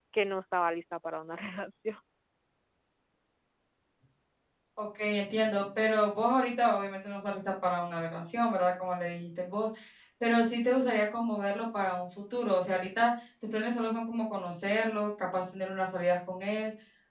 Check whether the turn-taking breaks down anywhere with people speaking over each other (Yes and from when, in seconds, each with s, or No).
No